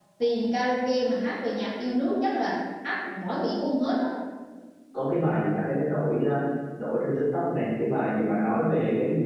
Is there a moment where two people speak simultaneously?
No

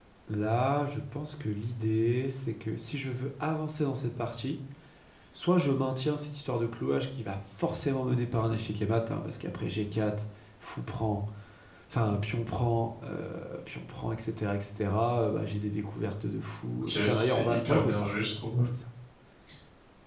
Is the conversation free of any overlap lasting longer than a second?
No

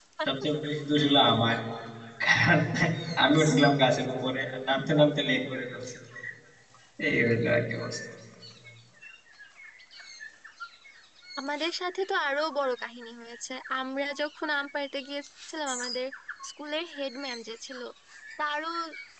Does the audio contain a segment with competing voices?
No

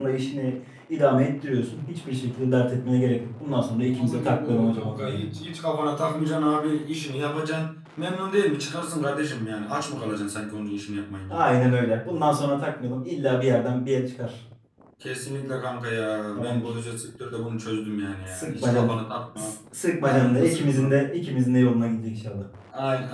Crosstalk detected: Yes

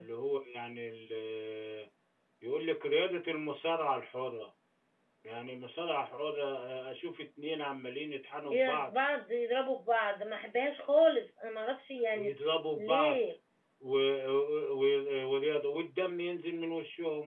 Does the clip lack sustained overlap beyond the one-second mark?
Yes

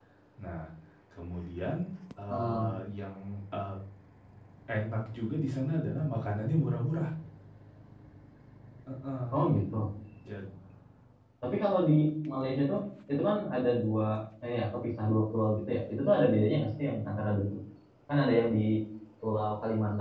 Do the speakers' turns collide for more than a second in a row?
No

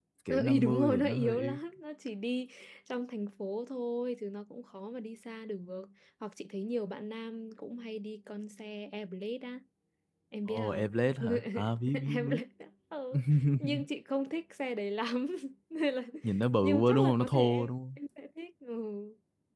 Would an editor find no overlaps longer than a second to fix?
No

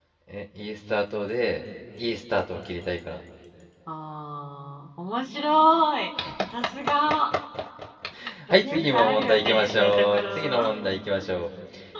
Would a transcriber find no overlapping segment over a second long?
No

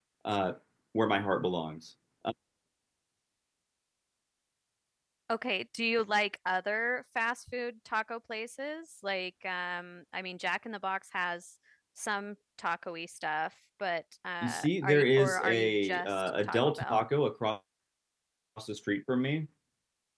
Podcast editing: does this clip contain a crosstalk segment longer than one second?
Yes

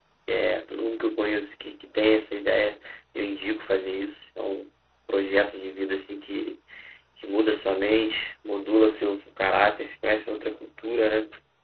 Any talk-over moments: No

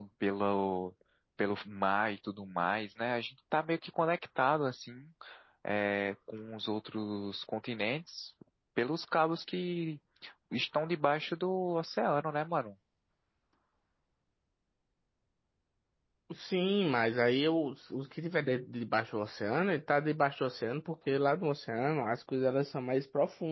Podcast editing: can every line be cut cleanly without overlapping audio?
Yes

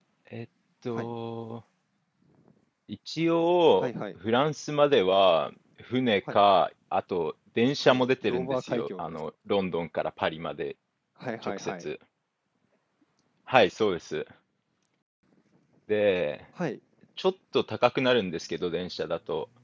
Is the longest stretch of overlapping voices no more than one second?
No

